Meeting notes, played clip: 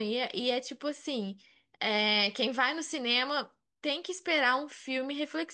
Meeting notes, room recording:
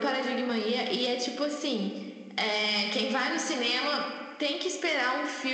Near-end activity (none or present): none